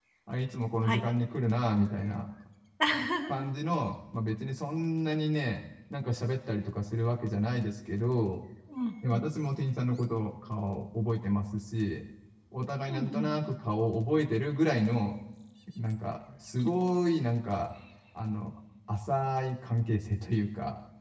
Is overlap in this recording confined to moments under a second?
Yes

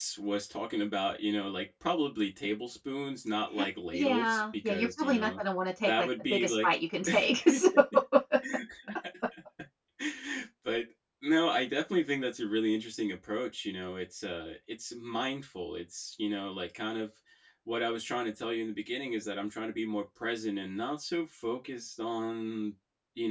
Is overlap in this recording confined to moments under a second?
No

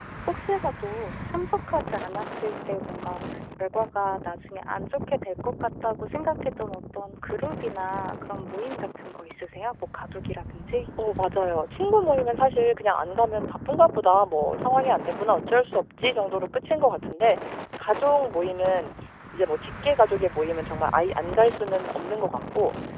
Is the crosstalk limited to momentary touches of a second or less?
Yes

